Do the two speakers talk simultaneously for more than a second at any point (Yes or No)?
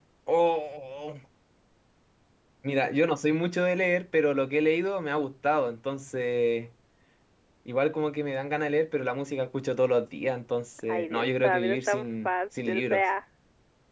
Yes